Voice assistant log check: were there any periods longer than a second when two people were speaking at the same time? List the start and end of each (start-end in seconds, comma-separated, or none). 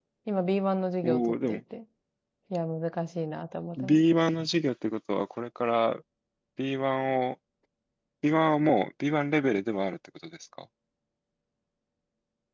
none